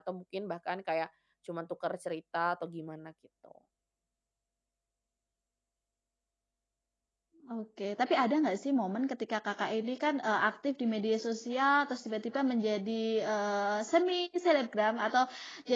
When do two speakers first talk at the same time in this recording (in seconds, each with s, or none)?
none